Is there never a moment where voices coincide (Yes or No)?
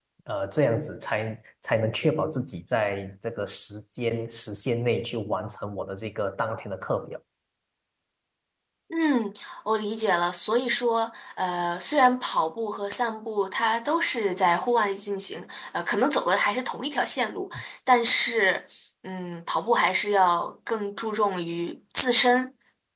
Yes